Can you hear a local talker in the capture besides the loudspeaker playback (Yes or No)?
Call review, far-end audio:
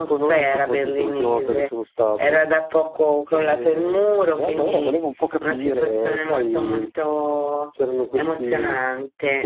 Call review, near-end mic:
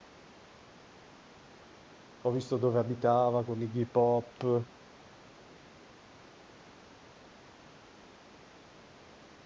Yes